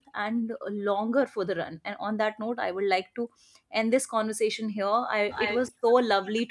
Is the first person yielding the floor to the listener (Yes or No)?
No